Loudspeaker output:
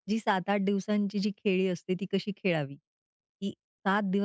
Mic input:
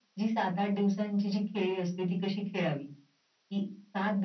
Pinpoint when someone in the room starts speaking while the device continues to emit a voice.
none

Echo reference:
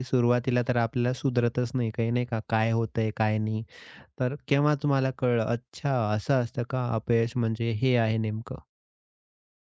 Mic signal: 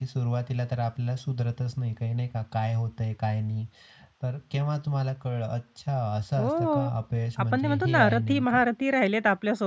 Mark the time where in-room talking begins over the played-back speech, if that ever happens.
6.4 s

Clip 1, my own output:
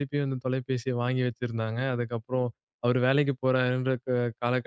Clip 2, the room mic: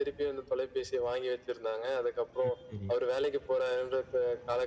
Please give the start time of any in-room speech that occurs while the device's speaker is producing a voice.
2.4 s

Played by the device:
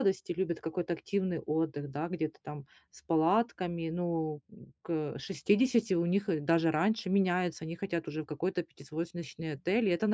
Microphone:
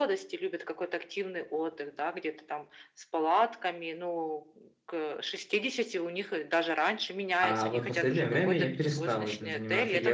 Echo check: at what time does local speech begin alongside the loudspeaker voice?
7.4 s

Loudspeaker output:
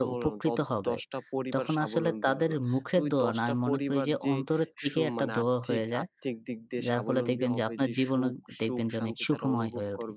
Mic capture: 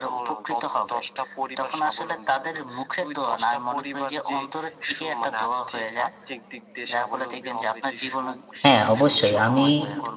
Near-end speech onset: 8.6 s

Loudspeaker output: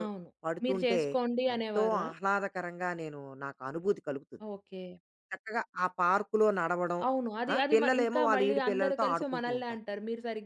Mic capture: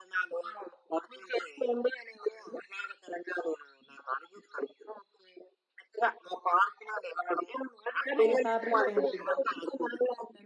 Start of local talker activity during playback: 8.2 s

